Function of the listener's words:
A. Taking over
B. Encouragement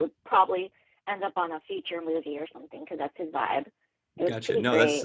A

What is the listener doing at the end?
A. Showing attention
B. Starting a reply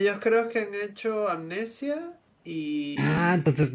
B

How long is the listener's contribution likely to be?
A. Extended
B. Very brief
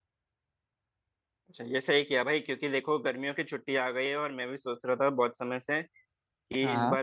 B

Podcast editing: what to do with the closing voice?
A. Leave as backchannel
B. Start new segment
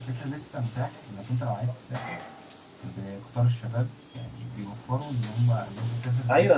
B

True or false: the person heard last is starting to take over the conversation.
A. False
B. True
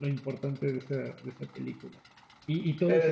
A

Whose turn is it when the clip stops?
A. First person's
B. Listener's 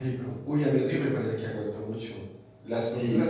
B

